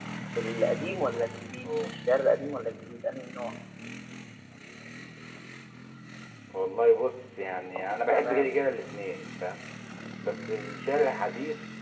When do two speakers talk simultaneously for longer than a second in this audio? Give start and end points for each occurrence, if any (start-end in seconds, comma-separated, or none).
none